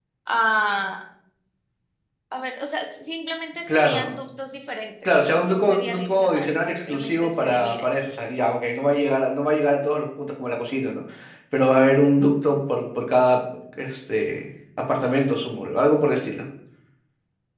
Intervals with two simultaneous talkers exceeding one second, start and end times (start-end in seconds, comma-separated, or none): 5.0-7.9